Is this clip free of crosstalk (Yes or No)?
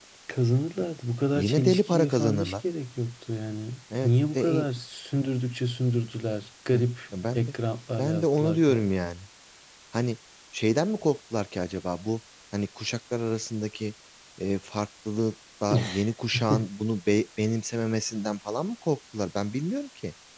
No